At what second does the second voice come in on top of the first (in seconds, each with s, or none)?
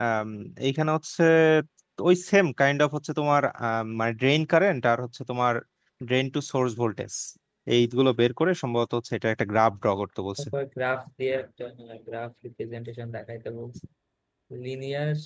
none